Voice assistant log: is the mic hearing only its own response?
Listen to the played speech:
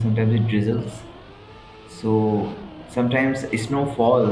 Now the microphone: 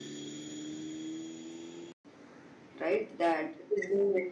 No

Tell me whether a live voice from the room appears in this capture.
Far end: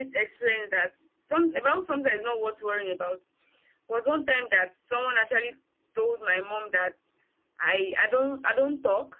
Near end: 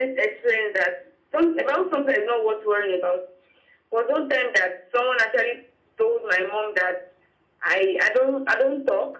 No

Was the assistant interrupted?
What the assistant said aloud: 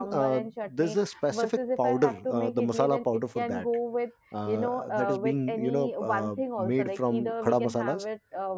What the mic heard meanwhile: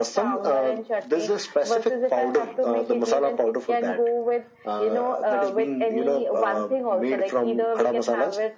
No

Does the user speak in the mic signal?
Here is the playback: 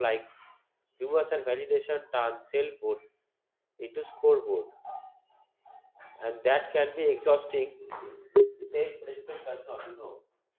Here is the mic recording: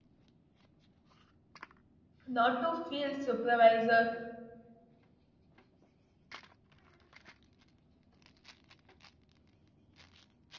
Yes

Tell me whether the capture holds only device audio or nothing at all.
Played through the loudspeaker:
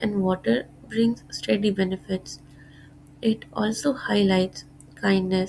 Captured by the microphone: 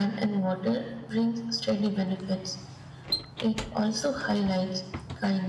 Yes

